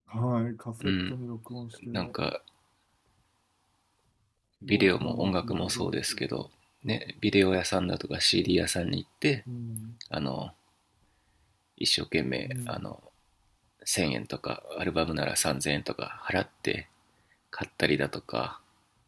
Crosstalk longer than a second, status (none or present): present